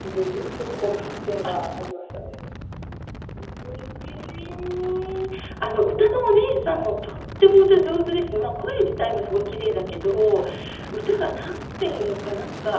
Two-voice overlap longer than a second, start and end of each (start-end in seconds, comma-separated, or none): none